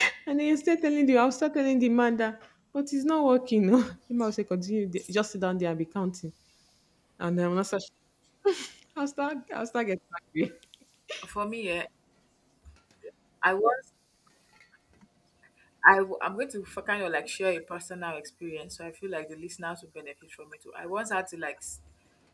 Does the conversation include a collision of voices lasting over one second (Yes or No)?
No